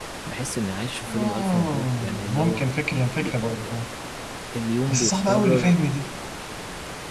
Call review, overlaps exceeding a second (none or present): present